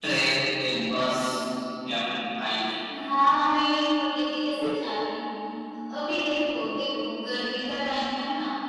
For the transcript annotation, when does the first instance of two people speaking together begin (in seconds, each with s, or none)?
none